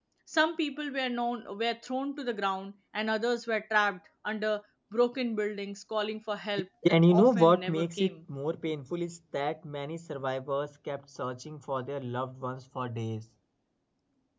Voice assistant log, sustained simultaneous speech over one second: present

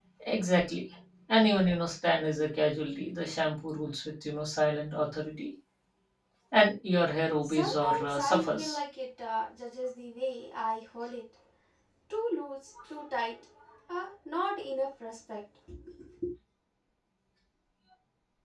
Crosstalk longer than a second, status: present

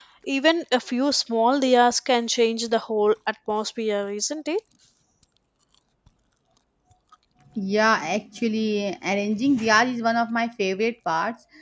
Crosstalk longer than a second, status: none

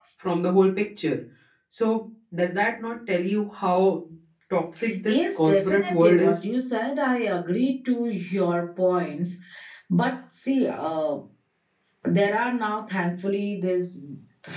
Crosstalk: present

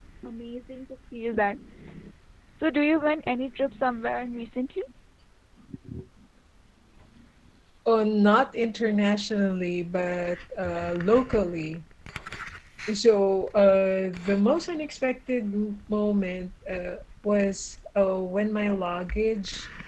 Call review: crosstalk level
none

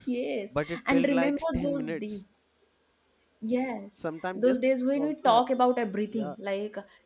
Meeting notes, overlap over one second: present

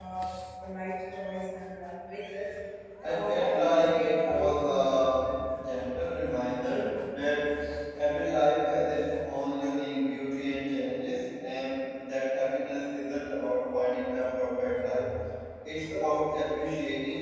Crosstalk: present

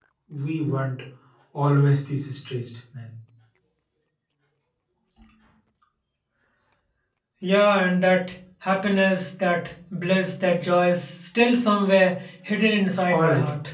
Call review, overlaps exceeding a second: none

